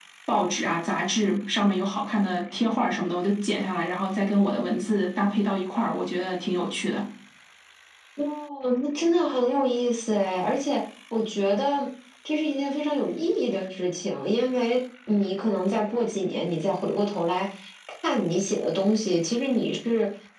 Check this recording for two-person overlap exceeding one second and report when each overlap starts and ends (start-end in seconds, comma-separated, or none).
none